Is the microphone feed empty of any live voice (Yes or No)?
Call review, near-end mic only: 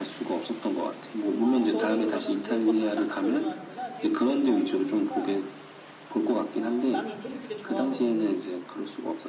No